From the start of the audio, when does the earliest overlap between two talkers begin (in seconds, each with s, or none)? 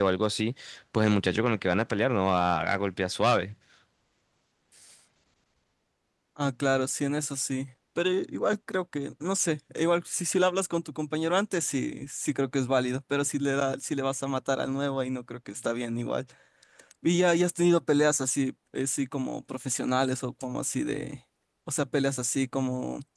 none